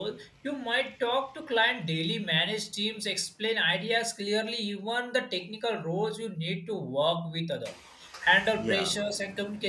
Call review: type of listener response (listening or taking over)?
listening